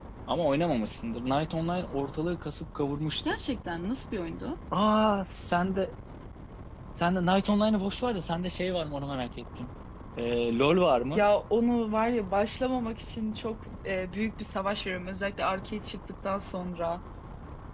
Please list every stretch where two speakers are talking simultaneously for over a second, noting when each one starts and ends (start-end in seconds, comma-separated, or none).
none